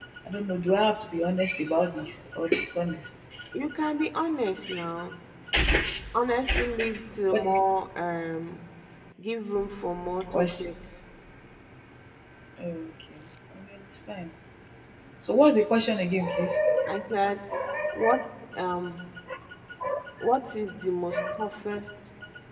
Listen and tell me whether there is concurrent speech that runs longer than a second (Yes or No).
No